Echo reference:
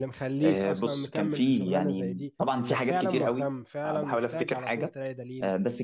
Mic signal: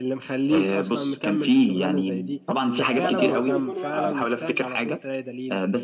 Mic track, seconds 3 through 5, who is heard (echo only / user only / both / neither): both